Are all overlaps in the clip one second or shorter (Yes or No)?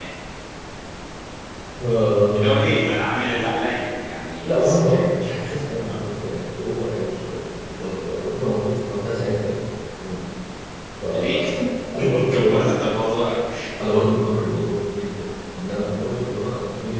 No